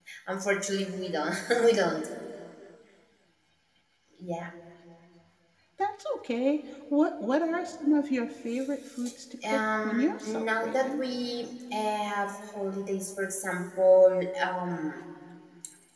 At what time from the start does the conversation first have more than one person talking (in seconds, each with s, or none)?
9.5 s